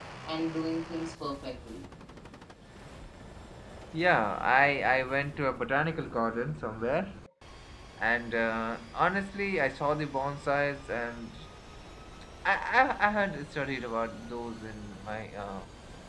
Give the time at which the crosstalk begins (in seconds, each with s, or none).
none